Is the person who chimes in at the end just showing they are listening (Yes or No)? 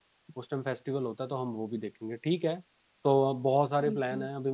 Yes